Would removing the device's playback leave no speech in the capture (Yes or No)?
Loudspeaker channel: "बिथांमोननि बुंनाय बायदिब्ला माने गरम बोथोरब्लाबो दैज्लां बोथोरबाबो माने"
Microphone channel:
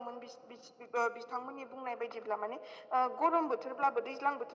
Yes